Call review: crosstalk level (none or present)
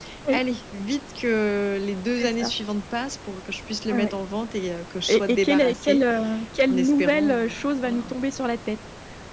present